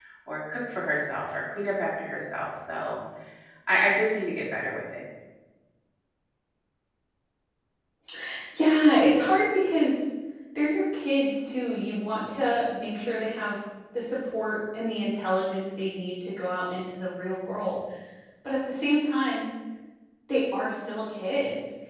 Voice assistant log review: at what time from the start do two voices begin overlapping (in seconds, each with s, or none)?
none